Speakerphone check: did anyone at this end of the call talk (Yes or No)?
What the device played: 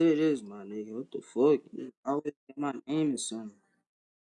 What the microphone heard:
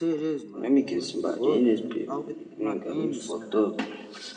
Yes